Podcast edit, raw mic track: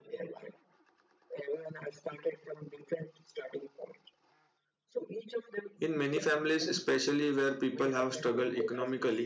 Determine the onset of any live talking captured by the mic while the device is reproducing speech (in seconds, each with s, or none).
5.8 s